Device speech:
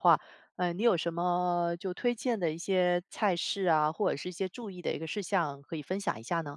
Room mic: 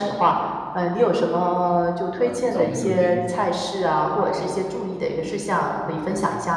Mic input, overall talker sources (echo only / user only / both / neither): both